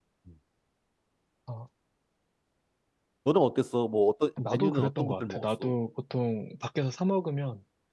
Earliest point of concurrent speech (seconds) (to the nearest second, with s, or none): 4 s